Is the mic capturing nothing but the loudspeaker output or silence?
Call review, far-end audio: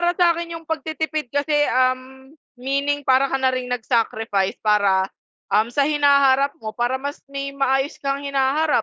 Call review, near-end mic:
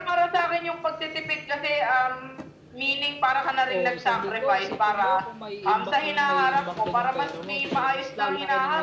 No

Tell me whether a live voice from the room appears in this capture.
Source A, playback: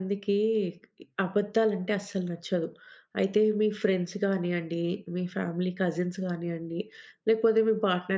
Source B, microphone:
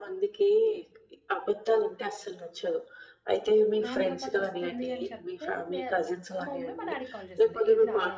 Yes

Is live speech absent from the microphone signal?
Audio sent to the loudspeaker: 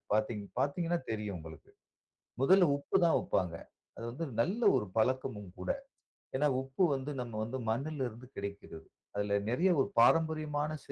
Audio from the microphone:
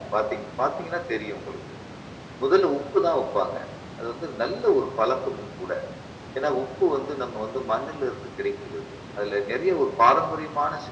Yes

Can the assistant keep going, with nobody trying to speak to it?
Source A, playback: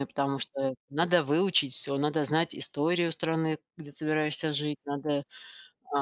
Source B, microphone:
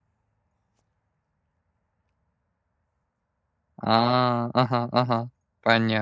No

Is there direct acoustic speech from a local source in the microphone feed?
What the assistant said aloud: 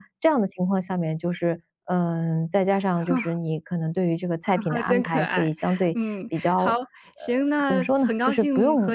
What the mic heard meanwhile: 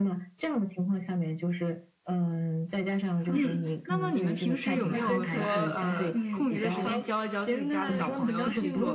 Yes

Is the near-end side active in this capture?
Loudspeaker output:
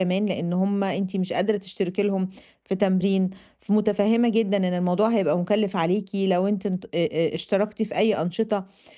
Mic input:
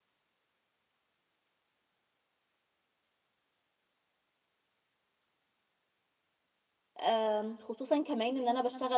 Yes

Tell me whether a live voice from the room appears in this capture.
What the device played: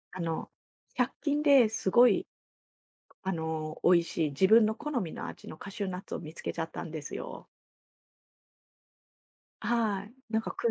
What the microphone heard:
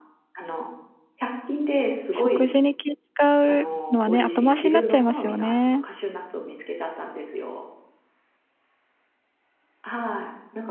Yes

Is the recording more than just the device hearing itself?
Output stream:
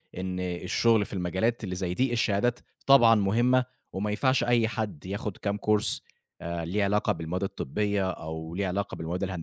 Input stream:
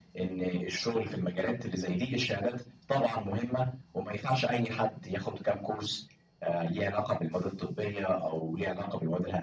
No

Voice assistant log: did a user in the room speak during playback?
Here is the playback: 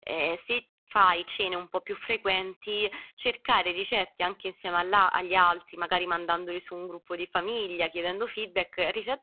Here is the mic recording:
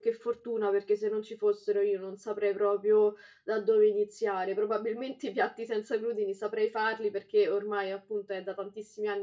Yes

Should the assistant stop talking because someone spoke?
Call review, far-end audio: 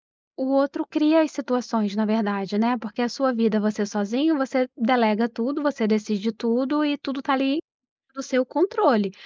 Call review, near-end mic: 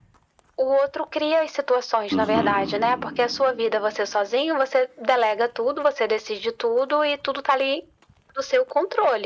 Yes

